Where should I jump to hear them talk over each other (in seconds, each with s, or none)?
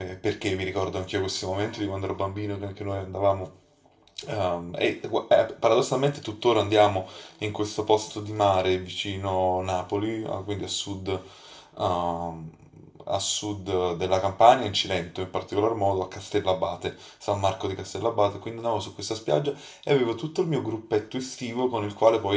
none